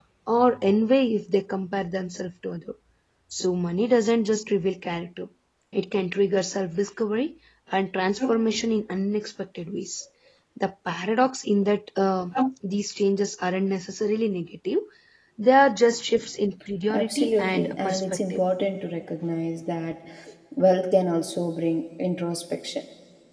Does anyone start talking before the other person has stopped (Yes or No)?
Yes